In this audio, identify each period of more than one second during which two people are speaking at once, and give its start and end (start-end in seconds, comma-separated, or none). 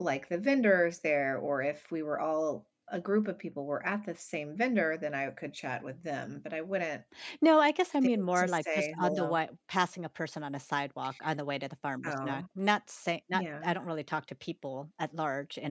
8.2-9.4